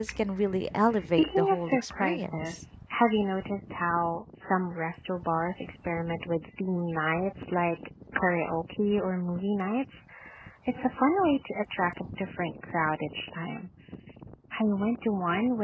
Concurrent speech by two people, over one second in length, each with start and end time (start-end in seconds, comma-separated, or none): 0.9-2.6